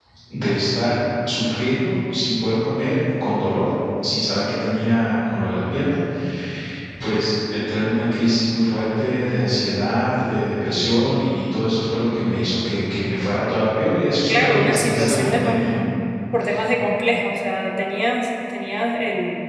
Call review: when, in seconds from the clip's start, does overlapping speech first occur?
14.3 s

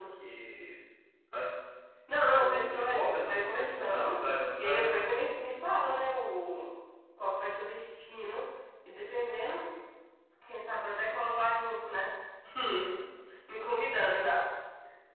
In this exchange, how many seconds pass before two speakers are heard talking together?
2.4 s

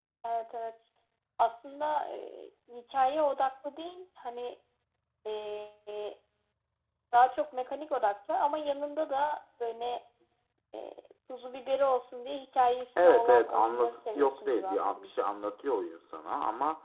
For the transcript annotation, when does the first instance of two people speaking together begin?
13.0 s

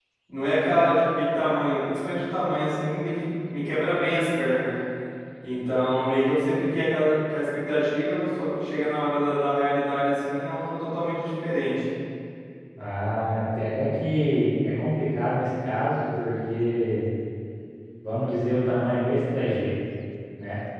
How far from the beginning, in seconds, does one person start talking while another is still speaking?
none

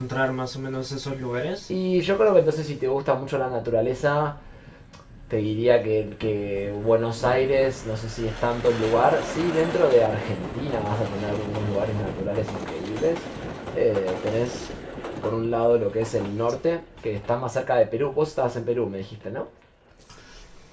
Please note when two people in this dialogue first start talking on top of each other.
none

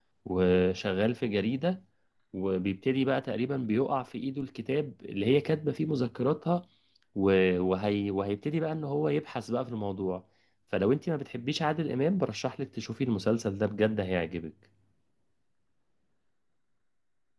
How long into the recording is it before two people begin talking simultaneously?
none

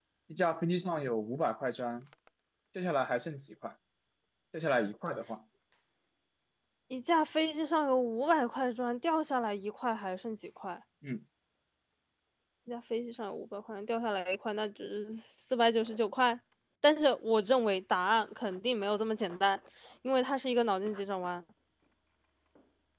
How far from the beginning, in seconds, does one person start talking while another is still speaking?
none

